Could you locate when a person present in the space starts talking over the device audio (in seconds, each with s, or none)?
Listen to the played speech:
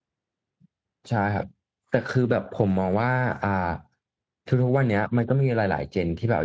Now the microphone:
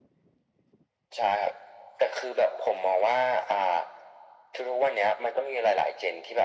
none